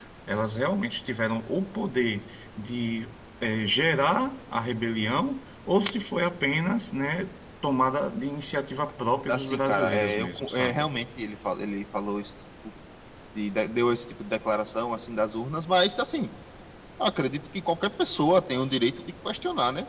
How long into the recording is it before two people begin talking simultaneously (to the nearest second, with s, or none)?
9 s